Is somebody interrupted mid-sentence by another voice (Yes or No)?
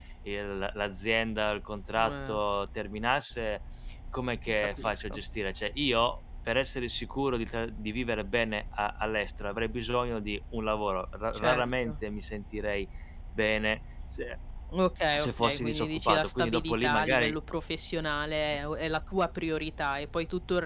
Yes